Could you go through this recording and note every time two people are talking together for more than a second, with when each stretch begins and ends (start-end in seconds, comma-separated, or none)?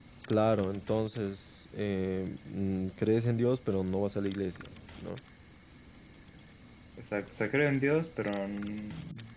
none